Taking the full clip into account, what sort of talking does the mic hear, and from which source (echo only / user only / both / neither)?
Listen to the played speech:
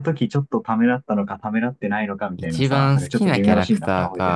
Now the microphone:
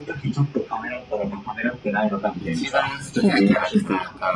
echo only